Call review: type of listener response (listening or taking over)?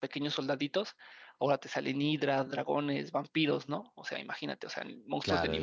taking over